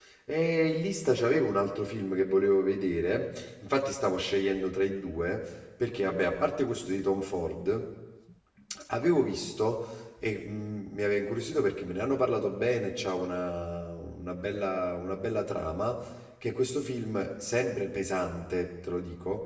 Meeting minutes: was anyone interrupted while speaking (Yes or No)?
No